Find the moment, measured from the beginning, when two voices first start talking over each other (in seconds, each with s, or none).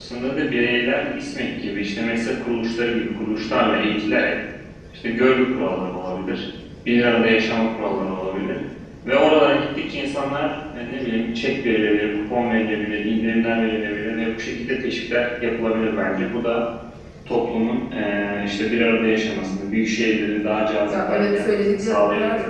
20.9 s